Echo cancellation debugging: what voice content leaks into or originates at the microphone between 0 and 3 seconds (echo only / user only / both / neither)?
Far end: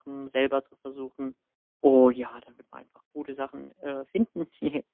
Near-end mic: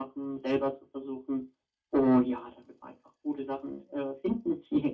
echo only